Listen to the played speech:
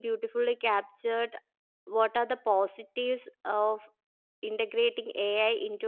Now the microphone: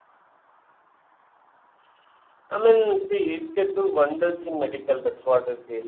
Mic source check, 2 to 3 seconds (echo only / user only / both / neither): user only